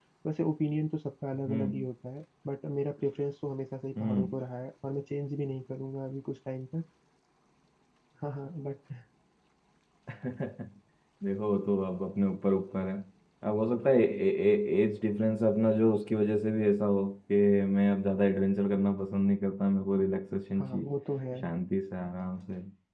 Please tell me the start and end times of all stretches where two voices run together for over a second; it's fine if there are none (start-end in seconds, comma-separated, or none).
none